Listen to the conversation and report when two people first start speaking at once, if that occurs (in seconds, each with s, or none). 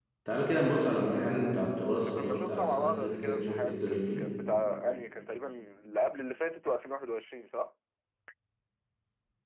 2.0 s